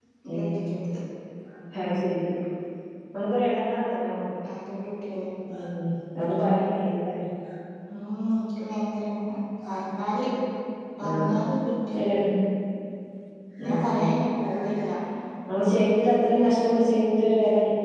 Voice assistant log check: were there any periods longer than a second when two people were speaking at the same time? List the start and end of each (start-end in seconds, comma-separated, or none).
none